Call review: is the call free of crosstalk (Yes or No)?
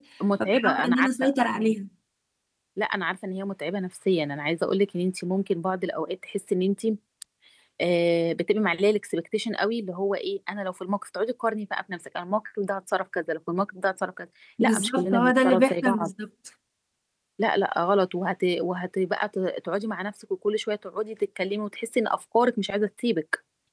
No